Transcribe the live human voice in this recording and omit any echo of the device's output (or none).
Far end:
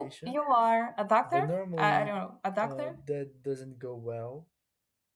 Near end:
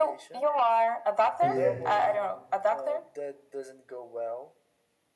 yeah